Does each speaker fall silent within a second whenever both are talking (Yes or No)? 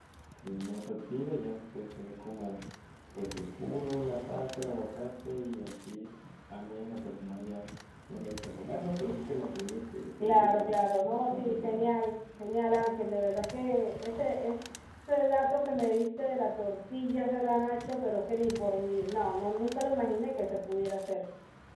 No